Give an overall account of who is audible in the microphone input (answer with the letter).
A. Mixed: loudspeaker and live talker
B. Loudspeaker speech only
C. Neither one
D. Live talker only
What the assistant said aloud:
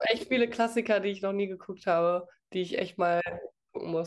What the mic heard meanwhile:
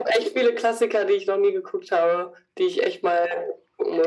B